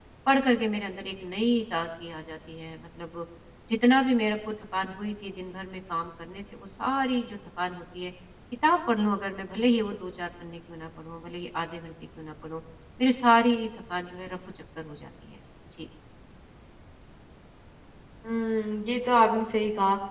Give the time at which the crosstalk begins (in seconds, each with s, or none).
none